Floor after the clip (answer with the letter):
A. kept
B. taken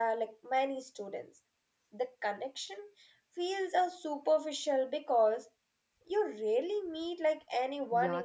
B